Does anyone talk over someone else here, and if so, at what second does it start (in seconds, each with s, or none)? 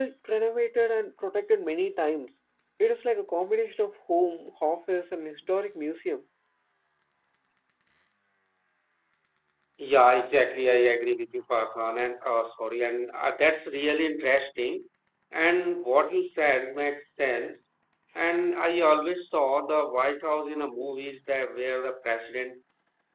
none